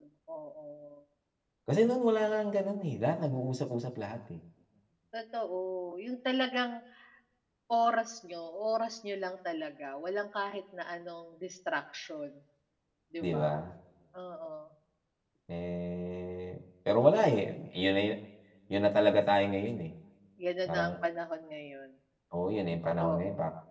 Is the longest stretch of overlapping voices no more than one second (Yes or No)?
Yes